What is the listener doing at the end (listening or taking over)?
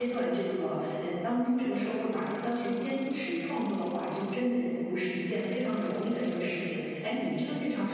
listening